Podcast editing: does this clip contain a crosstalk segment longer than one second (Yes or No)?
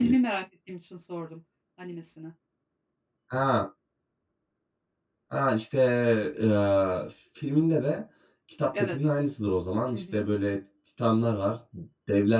No